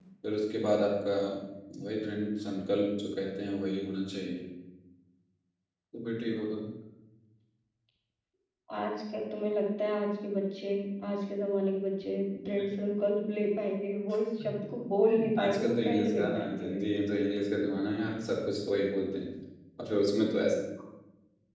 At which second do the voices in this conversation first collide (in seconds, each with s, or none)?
15.4 s